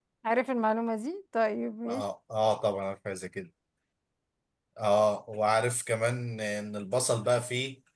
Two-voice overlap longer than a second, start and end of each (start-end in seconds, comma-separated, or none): none